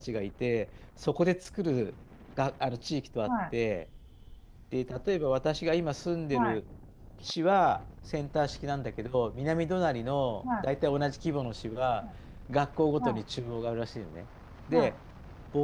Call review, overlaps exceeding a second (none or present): none